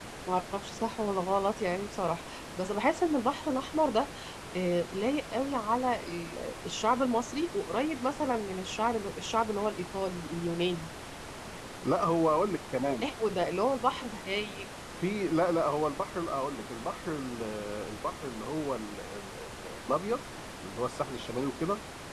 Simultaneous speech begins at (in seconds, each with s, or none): none